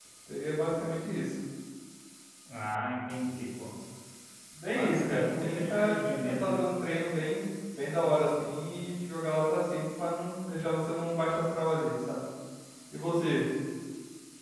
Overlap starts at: 4.7 s

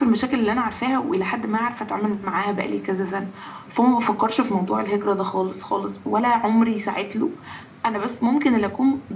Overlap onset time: none

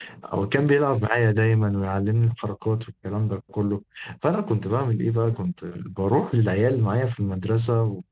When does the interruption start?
none

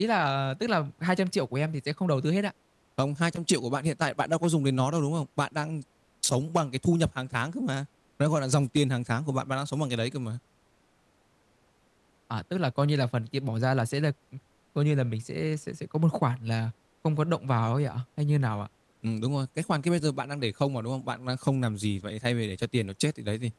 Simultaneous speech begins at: none

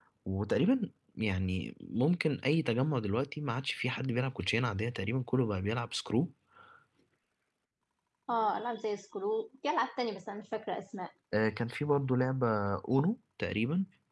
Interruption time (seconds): none

